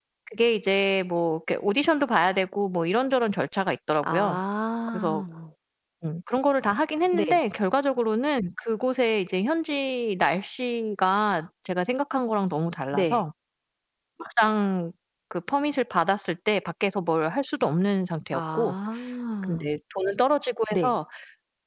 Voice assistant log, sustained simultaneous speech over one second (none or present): none